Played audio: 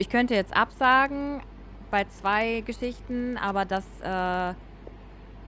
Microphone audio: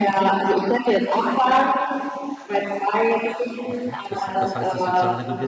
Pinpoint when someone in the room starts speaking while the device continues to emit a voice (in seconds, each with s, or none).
3.6 s